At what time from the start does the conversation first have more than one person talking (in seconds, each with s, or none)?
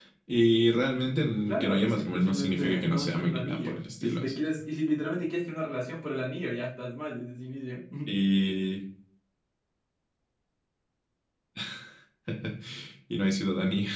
1.5 s